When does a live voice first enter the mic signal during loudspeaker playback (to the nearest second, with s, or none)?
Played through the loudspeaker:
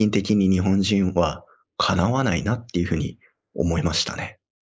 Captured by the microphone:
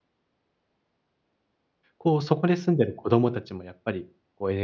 2 s